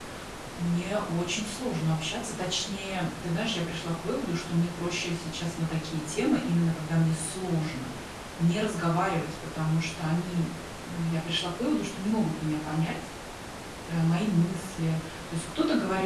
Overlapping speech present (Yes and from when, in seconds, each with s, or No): No